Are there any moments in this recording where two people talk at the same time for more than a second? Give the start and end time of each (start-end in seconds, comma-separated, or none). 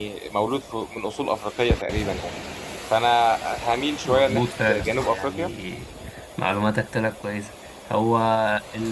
4.0-5.5